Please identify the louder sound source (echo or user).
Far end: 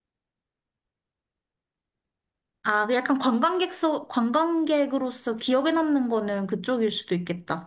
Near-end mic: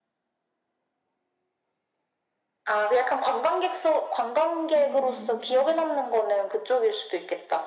echo